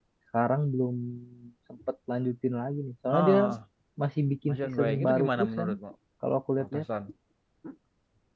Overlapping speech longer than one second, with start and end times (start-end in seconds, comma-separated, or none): 4.5-5.7